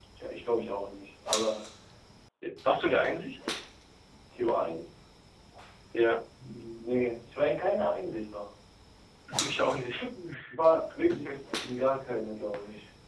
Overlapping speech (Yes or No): No